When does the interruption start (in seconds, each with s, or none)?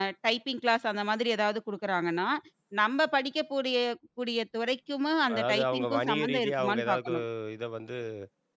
5.3 s